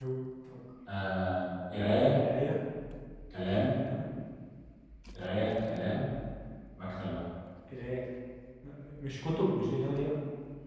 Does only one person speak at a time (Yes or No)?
Yes